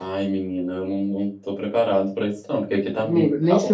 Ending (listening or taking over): taking over